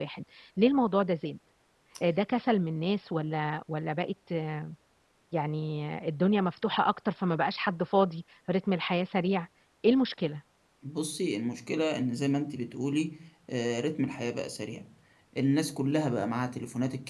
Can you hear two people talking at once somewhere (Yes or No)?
No